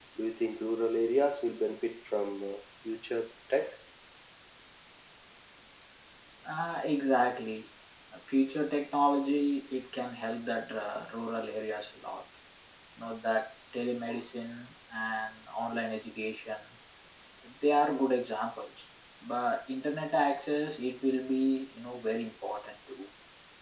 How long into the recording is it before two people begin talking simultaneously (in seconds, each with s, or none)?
none